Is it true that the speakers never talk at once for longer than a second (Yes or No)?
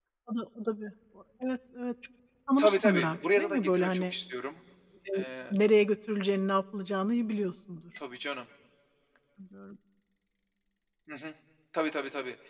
No